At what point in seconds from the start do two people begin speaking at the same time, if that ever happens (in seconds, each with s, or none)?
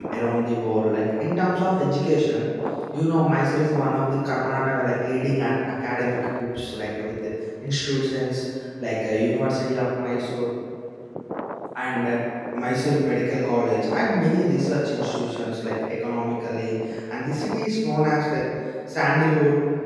none